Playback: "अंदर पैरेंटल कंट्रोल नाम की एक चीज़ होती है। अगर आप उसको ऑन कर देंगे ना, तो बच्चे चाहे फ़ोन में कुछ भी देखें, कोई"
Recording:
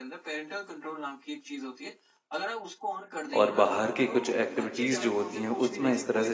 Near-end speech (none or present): present